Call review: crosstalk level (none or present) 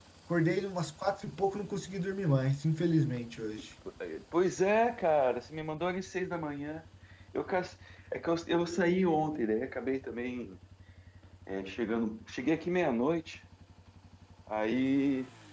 none